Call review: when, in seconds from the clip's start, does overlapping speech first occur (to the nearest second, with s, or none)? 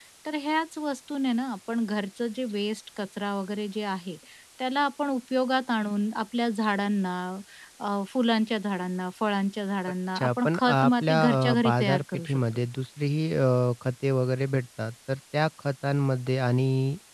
10 s